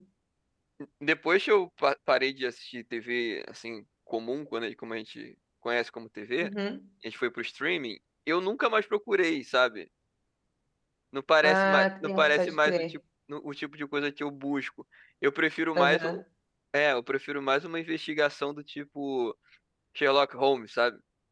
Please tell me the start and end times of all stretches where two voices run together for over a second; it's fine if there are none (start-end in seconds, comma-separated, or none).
11.4-12.9